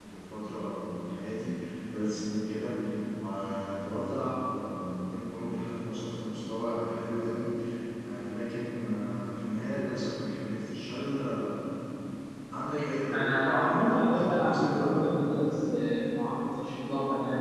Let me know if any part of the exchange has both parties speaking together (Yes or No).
Yes